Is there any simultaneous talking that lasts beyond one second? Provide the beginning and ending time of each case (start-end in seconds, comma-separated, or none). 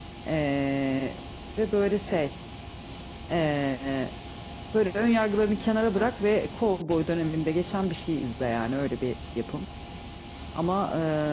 none